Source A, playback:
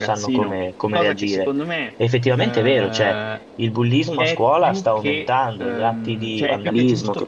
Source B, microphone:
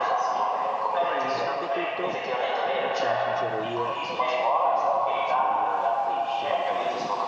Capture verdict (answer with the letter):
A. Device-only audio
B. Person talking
B